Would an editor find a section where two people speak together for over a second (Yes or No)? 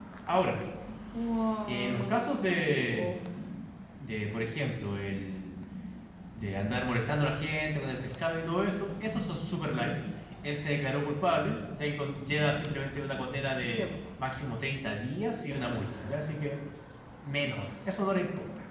Yes